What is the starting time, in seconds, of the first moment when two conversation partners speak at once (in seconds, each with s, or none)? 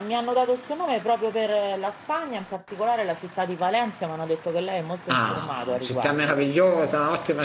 5.1 s